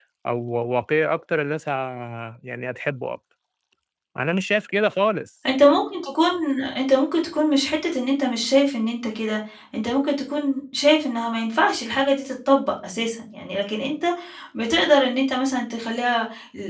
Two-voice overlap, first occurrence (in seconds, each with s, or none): none